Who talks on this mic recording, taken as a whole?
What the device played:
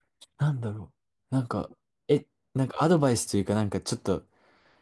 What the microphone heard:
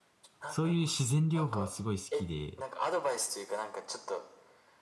both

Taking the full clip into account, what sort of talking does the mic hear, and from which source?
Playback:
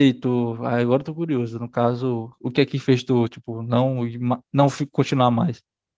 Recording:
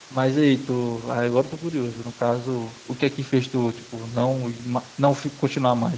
echo only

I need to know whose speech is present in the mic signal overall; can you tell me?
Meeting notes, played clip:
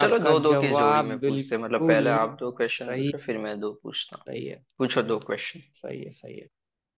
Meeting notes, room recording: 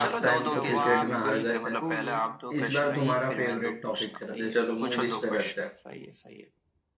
both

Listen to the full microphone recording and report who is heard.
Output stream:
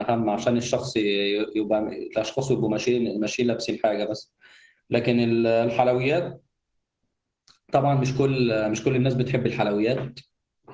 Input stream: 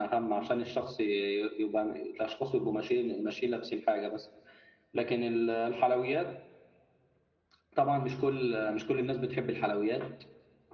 echo only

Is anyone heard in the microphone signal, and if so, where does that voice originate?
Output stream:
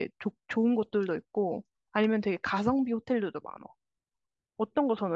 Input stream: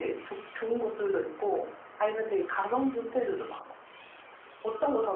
echo only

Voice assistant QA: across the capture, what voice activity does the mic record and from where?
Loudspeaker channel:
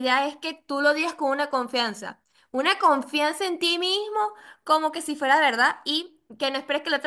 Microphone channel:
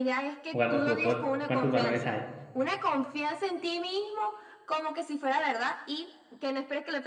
both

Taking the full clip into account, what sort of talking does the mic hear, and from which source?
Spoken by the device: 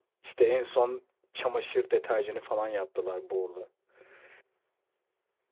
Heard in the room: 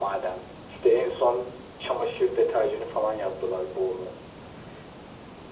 echo only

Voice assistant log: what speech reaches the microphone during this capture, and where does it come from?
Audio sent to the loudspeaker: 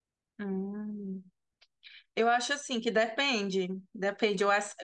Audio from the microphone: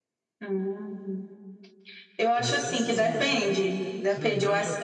both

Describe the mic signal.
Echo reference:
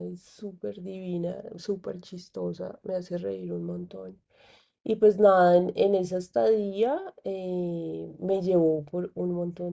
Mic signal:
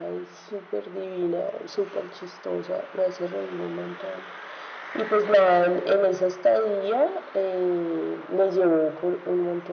echo only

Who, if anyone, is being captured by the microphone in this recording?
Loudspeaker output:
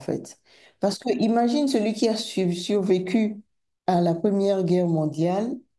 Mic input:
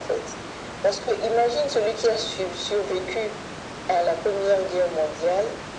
echo only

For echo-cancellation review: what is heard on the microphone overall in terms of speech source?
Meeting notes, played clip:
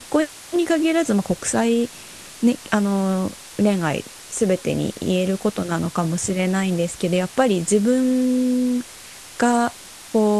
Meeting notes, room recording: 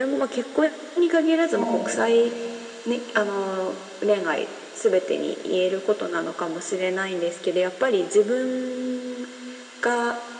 both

